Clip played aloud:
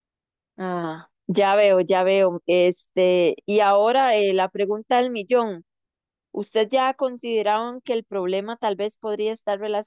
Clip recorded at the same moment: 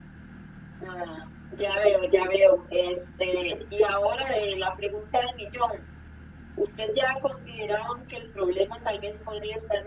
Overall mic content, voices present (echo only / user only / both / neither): echo only